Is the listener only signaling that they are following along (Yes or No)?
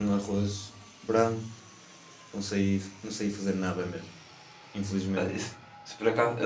No